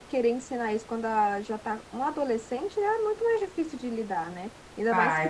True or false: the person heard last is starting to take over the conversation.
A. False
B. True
A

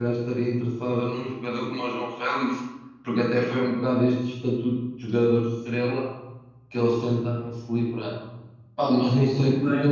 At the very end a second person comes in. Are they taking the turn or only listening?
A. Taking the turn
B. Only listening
B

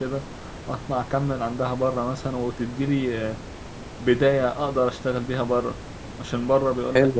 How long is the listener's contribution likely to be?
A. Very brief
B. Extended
A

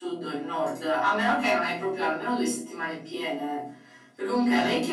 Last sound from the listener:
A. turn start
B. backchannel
B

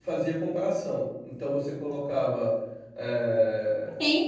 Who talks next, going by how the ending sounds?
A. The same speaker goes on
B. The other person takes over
B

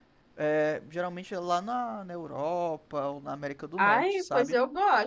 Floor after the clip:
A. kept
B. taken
B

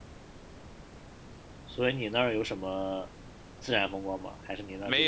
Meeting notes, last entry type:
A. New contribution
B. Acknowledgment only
A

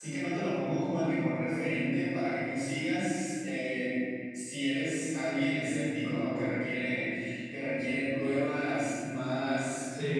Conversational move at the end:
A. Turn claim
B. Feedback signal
A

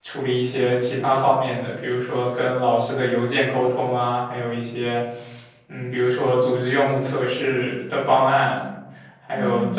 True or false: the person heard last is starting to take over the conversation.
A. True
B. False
B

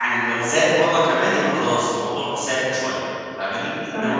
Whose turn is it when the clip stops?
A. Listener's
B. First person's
B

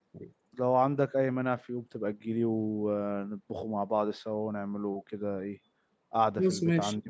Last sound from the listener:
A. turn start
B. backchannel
A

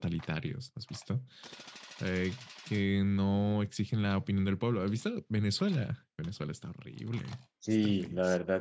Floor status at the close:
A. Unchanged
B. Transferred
B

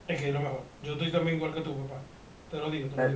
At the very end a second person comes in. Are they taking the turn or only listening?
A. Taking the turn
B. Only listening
A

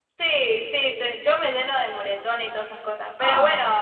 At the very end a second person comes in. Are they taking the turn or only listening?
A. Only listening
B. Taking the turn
A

